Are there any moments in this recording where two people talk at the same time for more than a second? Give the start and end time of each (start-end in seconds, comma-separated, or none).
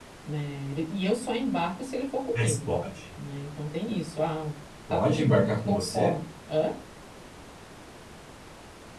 4.9-6.2